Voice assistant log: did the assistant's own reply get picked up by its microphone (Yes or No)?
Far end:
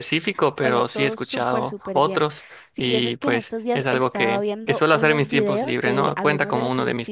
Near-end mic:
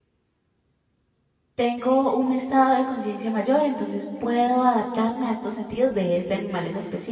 No